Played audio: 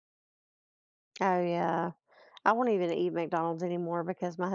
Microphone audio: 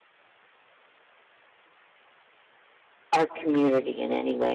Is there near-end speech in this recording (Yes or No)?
Yes